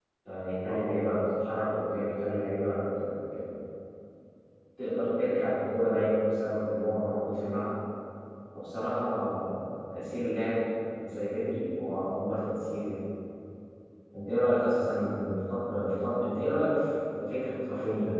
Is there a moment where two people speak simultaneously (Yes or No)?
No